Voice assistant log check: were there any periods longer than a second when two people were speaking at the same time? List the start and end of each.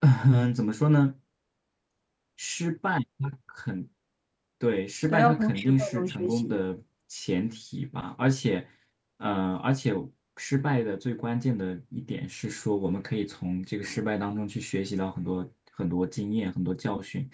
5.1-6.6

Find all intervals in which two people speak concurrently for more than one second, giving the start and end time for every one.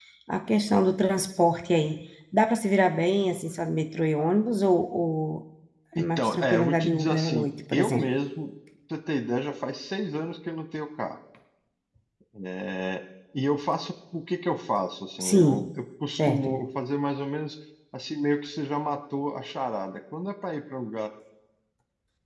6.0-8.0

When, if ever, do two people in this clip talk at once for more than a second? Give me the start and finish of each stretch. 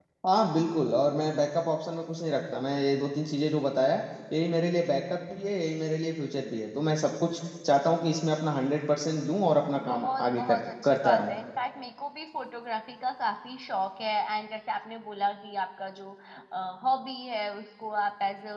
9.9-11.3

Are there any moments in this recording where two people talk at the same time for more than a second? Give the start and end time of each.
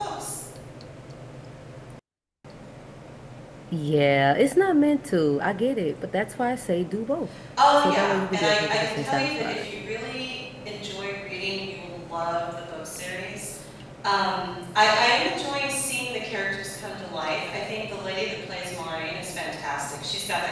7.8-9.7

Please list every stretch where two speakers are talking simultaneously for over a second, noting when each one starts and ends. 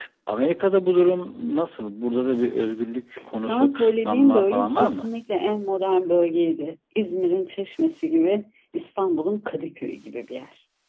3.5-5.1

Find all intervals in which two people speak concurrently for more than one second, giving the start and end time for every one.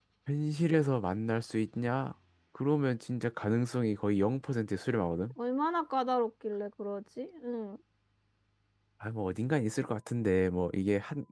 none

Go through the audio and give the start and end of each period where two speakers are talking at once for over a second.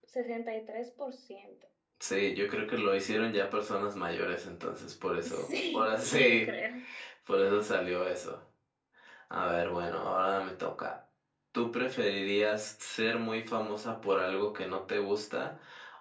5.2-6.5

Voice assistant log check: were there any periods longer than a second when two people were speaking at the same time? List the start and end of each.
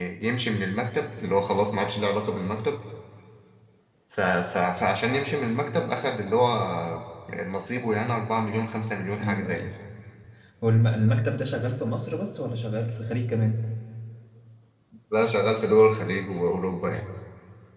none

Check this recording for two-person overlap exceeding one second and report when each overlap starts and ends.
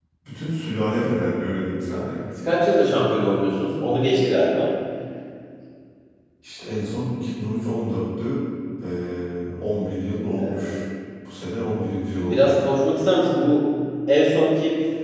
none

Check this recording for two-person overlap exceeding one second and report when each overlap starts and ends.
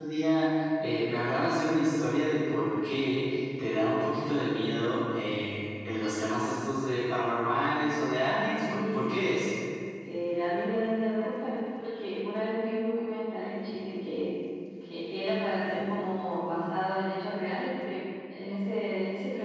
8.2-9.4

